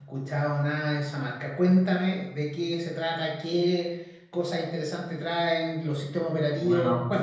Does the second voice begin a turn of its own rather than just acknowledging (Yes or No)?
Yes